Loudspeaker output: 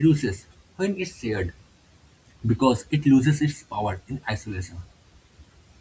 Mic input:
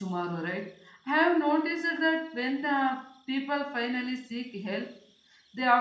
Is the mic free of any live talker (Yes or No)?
No